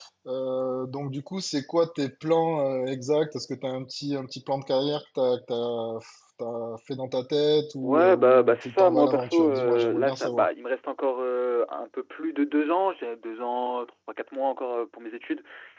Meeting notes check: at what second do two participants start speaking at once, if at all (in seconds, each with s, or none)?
7.8 s